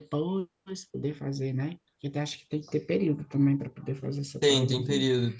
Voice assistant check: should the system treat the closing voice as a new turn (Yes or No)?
Yes